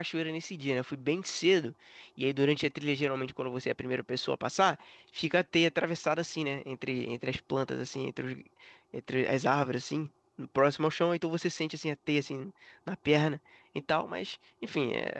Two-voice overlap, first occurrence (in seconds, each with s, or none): none